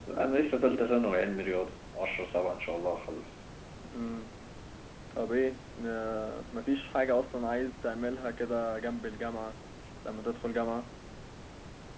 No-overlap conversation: Yes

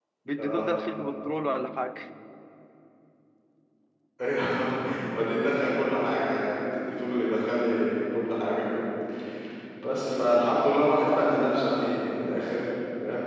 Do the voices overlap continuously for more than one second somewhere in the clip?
No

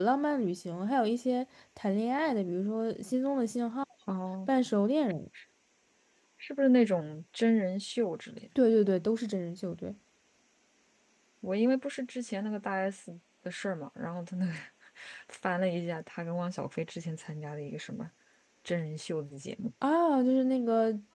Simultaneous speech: No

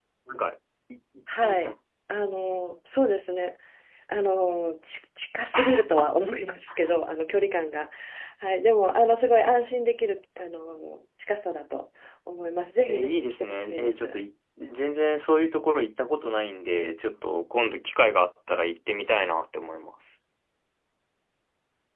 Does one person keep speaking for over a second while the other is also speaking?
Yes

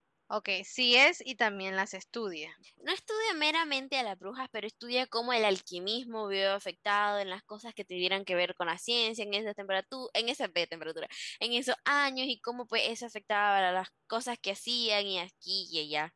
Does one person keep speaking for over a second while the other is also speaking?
No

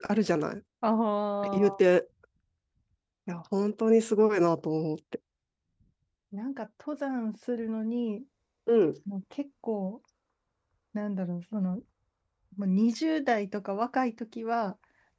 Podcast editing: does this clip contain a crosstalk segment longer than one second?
No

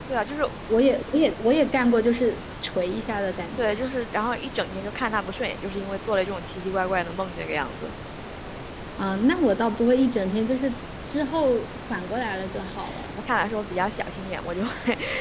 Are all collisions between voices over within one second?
Yes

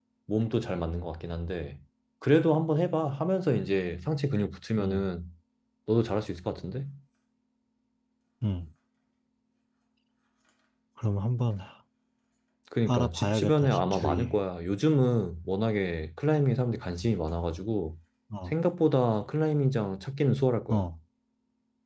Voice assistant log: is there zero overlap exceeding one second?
No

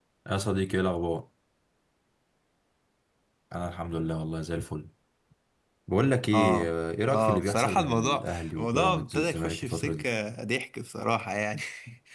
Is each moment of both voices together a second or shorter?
No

